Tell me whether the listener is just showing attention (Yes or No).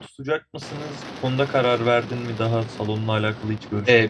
No